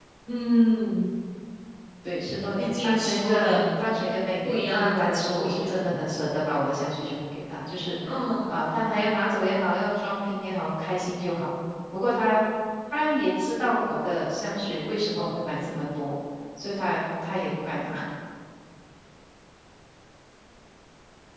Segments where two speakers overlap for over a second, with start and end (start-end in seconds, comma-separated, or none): 2.6-3.8, 4.4-5.9